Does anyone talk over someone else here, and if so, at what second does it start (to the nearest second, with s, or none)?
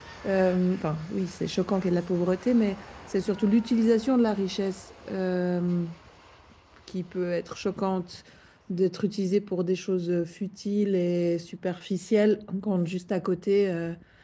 none